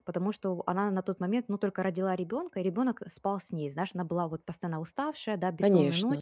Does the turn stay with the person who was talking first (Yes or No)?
Yes